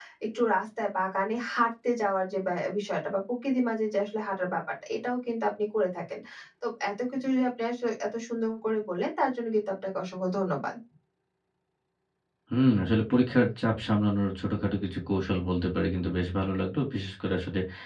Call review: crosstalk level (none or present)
none